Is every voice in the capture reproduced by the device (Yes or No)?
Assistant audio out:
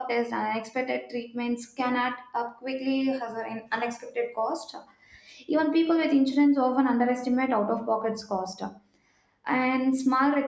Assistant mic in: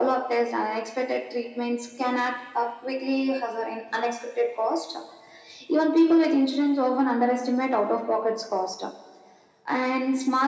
Yes